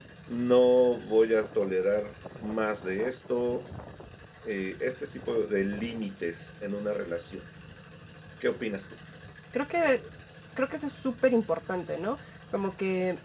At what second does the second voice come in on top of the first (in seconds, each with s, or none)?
none